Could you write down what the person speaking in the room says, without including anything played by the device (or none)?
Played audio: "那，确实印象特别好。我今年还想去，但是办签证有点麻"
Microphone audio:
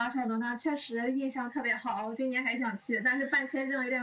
none